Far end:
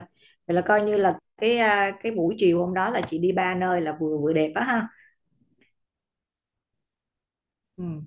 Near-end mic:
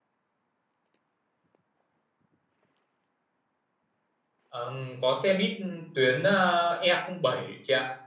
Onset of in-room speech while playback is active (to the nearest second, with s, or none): 4 s